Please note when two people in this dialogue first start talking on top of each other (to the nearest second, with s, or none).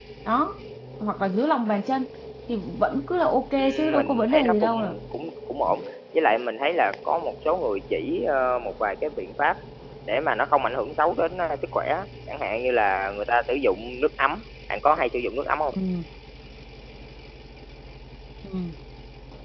4 s